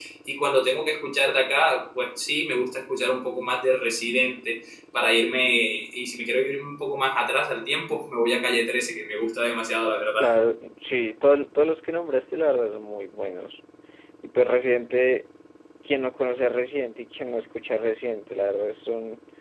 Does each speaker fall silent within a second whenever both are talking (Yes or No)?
Yes